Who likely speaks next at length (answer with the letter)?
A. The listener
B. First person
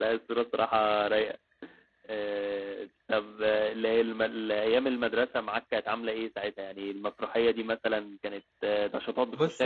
A